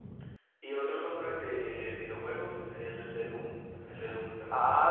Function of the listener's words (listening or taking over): taking over